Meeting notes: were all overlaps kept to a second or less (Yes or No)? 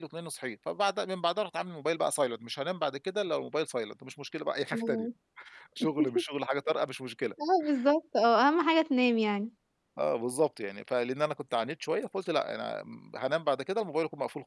Yes